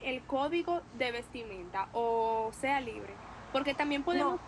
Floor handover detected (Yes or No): No